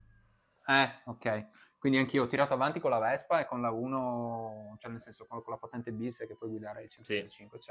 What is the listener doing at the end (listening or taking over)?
listening